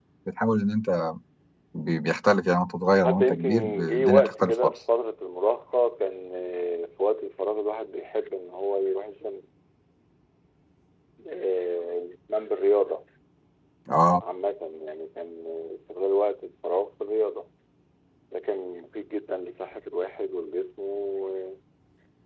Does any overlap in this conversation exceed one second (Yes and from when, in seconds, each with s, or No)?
Yes, from 3.0 s